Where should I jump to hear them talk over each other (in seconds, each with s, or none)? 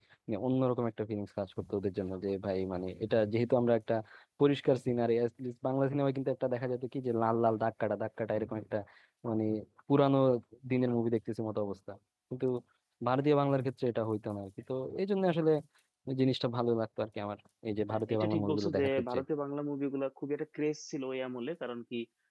17.9 s